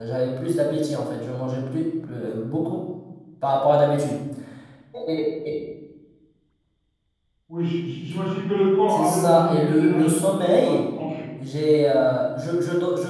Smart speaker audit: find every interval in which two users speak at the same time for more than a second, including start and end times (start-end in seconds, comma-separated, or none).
8.9-10.8